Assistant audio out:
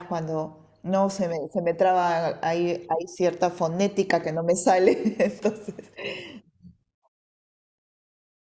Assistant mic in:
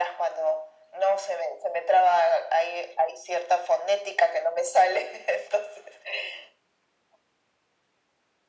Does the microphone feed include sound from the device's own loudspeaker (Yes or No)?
Yes